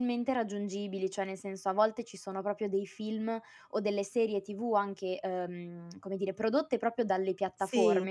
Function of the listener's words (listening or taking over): listening